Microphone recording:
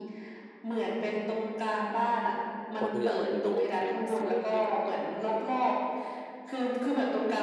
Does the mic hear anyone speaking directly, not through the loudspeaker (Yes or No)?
Yes